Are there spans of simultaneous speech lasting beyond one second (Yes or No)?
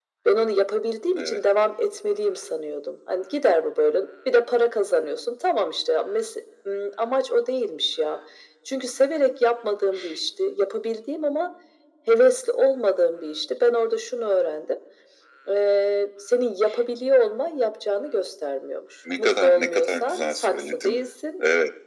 Yes